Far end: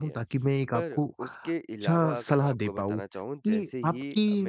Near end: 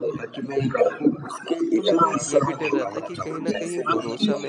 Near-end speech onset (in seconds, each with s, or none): 1.8 s